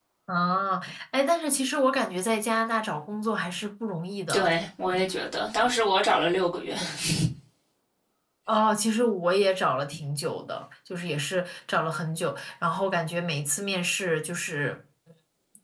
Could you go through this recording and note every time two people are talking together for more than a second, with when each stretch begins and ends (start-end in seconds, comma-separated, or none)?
none